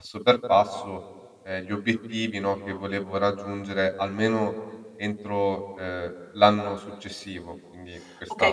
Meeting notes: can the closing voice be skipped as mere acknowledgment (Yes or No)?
No